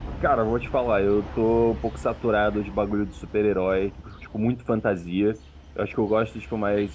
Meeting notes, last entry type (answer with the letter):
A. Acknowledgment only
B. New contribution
A